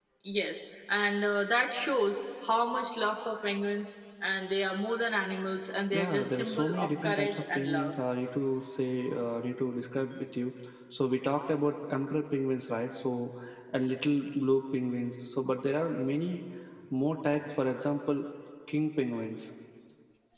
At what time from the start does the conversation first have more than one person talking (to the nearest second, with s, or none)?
6 s